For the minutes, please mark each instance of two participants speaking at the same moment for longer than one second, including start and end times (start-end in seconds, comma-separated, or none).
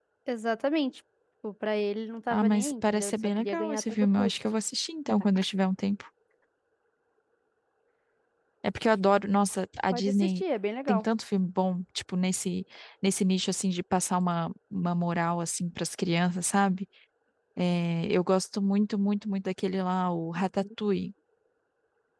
2.3-4.4